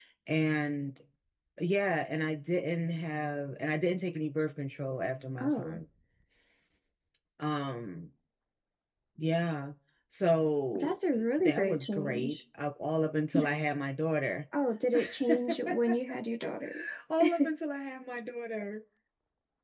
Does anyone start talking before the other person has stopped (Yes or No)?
Yes